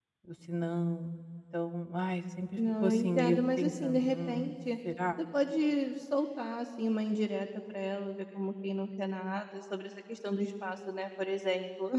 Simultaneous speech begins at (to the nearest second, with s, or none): 3 s